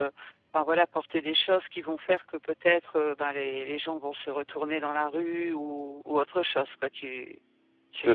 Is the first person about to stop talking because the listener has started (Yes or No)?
No